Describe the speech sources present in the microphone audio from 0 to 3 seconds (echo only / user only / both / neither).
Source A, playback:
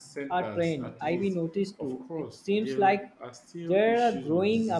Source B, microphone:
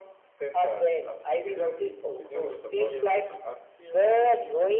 both